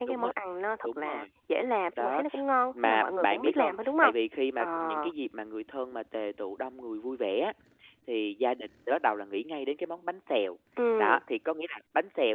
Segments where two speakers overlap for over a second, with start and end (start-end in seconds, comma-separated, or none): 2.8-4.1